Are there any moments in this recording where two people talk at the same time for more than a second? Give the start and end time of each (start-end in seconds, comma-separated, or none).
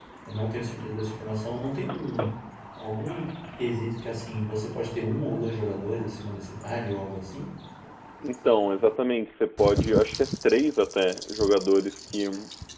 none